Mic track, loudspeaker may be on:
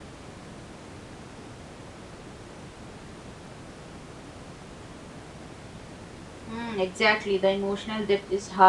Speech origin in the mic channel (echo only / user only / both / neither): user only